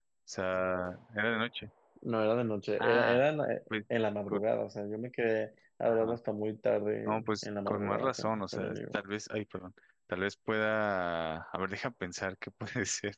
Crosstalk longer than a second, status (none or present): present